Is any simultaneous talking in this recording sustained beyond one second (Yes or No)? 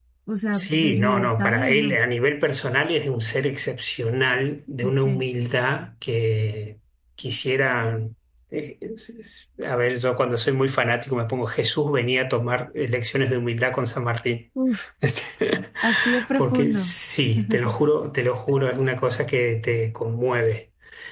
Yes